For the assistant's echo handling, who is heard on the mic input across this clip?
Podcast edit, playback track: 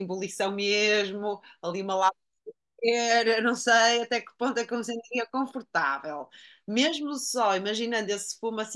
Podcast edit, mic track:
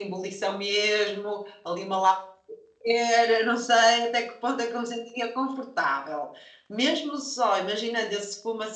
echo only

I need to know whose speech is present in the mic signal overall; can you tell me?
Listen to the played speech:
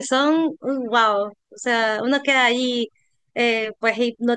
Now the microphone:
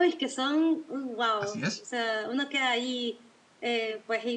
both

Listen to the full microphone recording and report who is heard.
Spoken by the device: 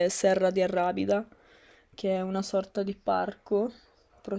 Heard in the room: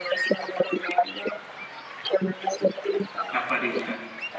both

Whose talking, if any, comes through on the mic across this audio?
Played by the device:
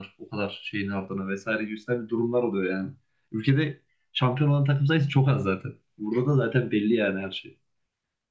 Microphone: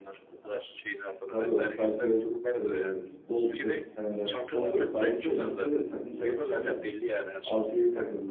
both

